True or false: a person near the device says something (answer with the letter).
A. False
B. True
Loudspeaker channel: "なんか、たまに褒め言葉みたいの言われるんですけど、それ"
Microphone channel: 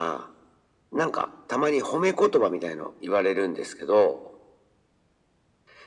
A